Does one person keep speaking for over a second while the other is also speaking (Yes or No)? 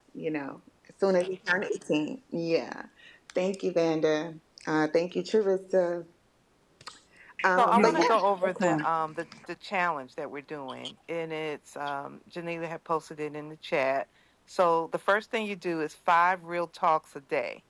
Yes